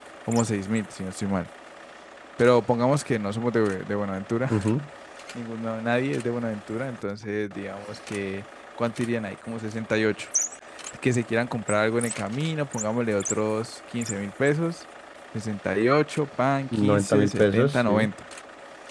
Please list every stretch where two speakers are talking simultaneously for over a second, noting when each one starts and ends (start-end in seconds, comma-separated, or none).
16.8-18.1